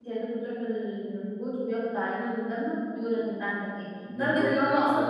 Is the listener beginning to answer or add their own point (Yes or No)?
No